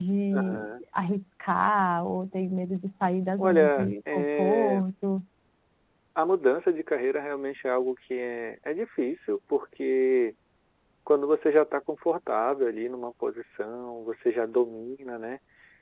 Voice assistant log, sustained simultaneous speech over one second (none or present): present